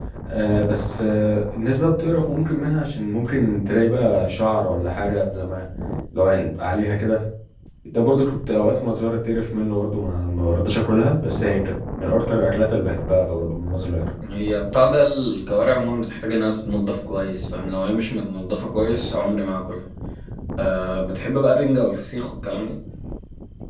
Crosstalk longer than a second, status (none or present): none